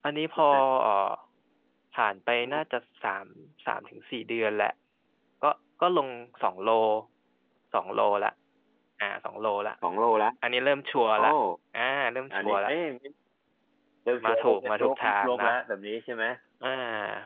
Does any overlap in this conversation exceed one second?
Yes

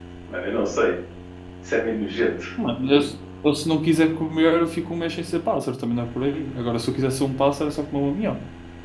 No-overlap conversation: Yes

